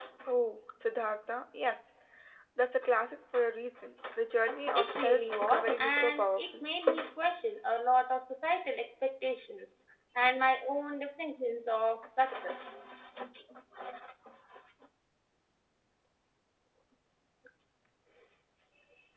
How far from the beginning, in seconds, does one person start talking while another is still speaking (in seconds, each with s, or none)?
4.8 s